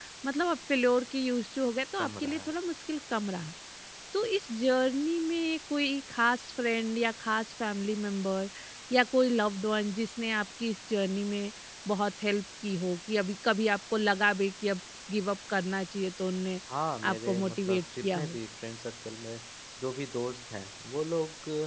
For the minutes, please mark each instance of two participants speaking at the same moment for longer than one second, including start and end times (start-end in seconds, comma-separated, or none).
17.0-18.4